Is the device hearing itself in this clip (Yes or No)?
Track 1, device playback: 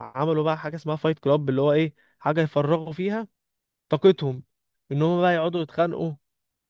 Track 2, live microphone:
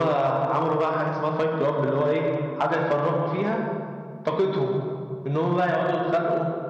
Yes